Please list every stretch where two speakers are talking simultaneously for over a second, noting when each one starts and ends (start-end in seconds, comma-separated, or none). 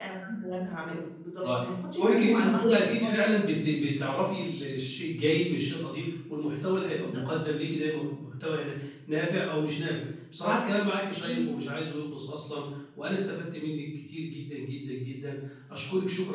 2.0-3.3